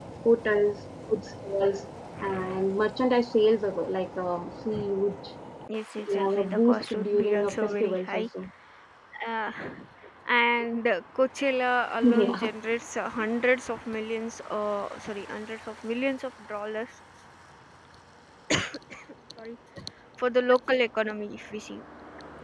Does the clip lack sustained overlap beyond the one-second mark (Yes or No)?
No